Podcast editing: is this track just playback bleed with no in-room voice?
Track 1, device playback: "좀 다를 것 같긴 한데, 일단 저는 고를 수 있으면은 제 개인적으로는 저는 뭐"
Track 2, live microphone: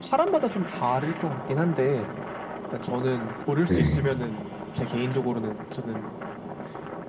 No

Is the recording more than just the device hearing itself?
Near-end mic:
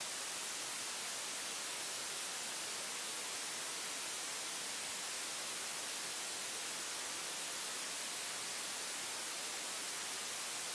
No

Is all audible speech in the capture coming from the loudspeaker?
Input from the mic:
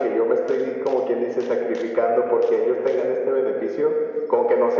Yes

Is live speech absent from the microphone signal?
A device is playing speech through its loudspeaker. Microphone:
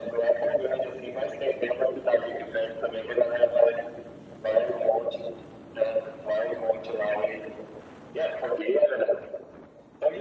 Yes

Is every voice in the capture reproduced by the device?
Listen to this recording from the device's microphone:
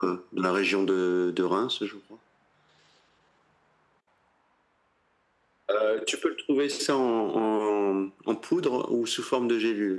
Yes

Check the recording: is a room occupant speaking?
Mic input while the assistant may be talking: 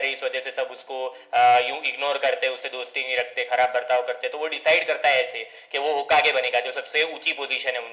No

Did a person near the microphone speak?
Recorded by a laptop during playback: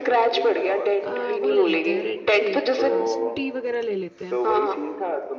Yes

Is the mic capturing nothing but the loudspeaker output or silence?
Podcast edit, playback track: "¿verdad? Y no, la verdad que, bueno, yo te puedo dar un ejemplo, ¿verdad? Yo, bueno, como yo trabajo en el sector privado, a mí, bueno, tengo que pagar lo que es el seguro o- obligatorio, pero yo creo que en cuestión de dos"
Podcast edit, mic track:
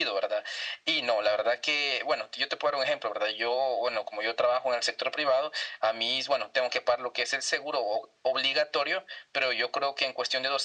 Yes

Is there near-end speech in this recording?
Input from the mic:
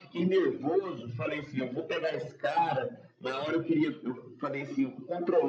No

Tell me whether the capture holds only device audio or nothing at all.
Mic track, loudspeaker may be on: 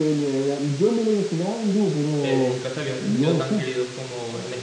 No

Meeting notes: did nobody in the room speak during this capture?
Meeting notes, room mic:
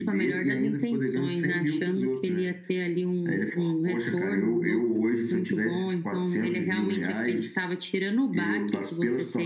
Yes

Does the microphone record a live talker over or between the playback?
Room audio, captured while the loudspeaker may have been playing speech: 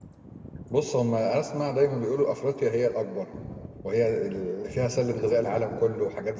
Yes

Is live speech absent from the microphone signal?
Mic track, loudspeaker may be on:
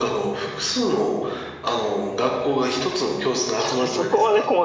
No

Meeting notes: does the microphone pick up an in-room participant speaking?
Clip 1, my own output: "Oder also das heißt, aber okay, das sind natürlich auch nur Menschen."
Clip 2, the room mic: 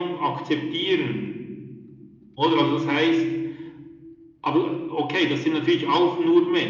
No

